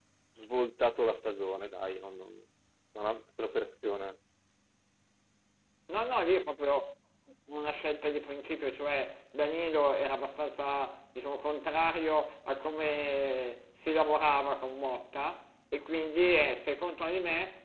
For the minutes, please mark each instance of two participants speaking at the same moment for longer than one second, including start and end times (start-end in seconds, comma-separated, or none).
none